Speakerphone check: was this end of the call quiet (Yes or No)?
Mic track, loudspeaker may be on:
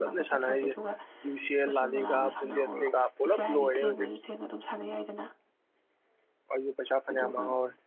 No